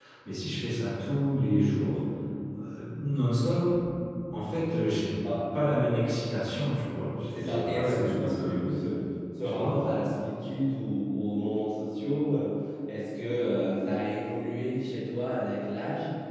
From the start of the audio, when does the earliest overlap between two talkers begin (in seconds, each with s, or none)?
7.3 s